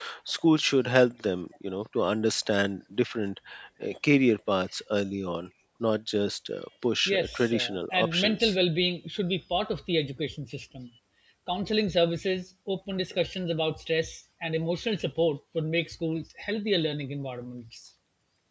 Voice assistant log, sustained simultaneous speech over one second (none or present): present